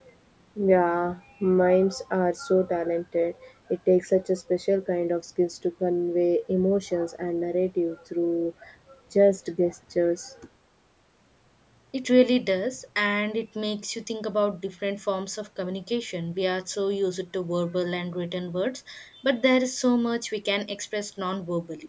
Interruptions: none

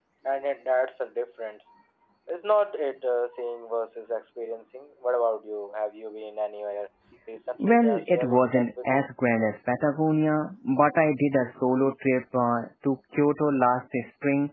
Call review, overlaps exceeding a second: present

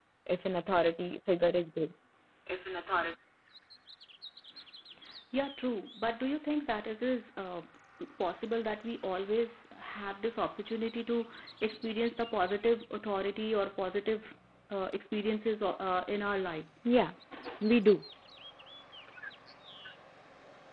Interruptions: none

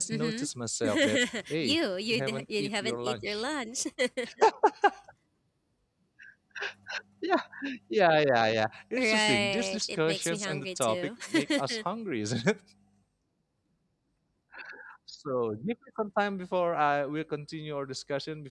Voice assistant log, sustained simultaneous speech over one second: present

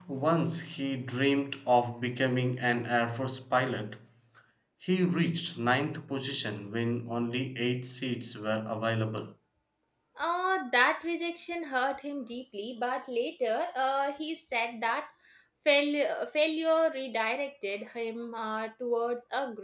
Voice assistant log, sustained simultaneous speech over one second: none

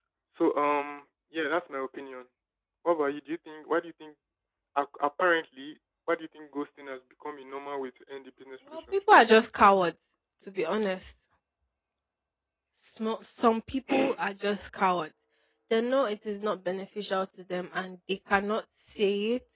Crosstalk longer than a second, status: none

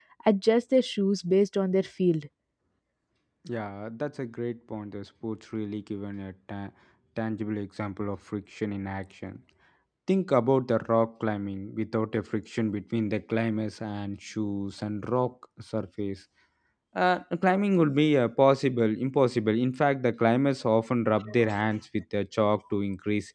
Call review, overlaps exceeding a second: none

